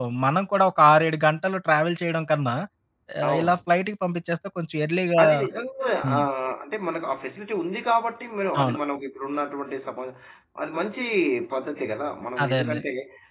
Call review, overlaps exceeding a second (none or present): none